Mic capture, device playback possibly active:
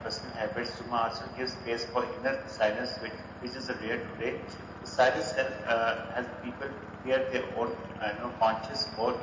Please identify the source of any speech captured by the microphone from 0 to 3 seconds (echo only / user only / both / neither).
echo only